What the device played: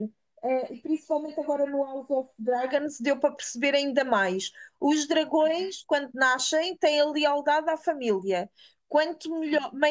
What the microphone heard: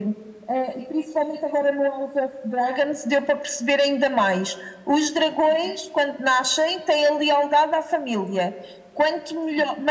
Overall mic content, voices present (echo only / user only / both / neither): echo only